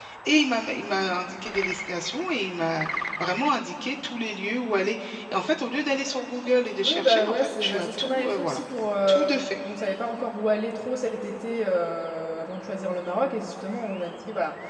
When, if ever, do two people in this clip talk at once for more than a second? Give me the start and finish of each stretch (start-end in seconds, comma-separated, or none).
6.8-8.6